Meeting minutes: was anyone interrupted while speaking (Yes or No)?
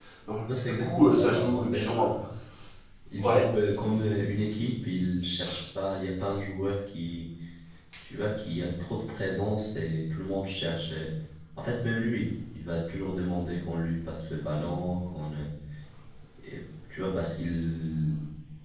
Yes